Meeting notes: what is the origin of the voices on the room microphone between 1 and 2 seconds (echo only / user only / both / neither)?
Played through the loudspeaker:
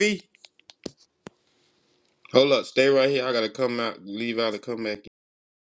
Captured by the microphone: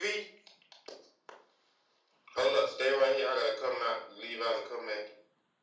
neither